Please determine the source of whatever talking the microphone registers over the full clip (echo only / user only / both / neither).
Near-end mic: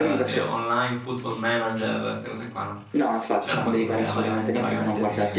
both